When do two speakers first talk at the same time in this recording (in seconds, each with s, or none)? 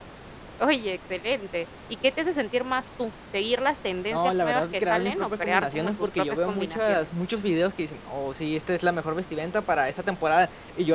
4.1 s